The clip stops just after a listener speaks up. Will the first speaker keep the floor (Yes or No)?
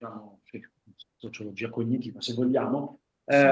Yes